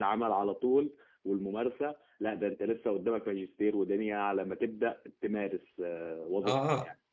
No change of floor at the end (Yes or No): No